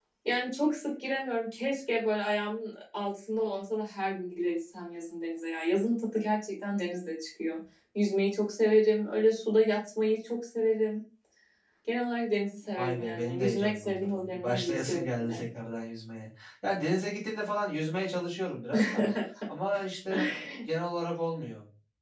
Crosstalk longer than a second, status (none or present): present